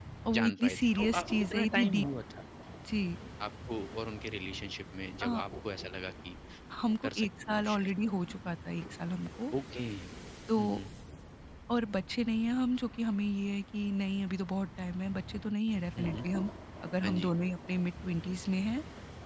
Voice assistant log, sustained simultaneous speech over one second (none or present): present